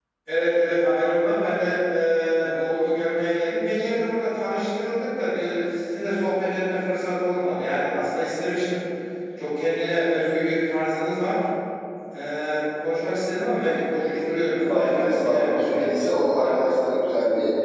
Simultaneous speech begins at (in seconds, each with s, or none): 14.5 s